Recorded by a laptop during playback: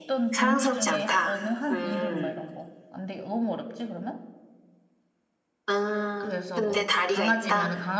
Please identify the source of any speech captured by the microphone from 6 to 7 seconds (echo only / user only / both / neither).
both